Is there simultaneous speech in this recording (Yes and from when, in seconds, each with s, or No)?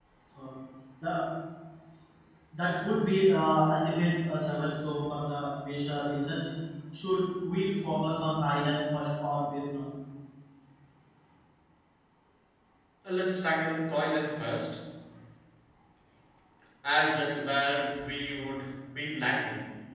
No